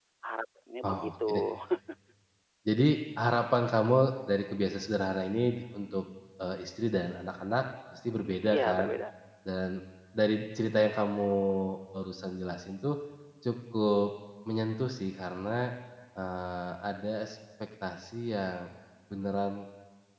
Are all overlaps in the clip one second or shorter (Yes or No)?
Yes